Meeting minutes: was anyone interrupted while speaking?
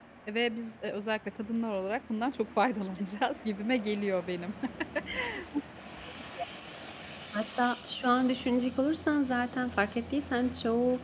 No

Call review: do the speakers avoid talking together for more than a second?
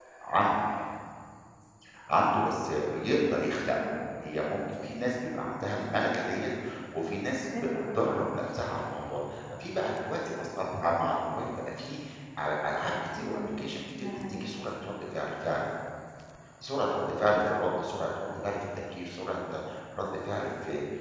Yes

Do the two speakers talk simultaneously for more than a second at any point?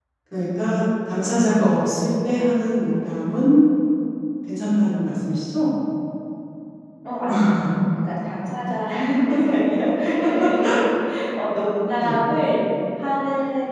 No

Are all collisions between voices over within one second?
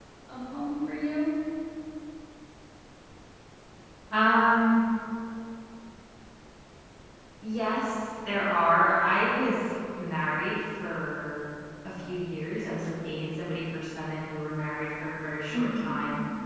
Yes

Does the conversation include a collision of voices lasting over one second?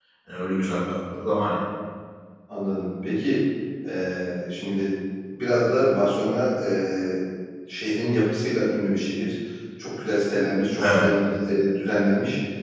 No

